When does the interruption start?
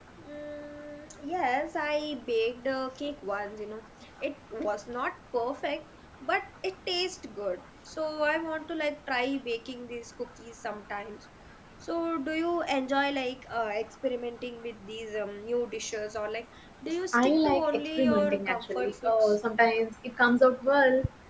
17.1 s

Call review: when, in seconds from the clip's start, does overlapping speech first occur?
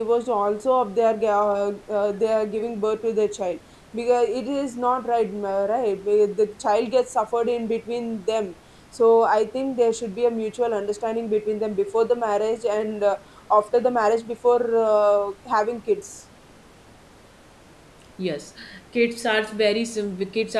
none

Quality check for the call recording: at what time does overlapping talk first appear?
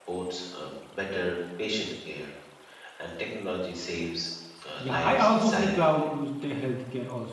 4.8 s

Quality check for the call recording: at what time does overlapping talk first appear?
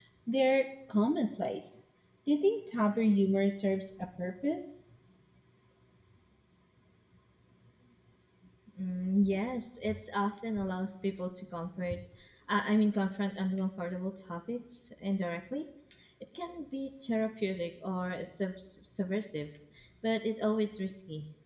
none

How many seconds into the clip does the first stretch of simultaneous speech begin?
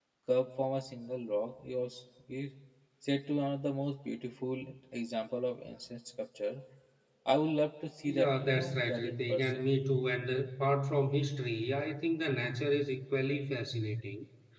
8.1 s

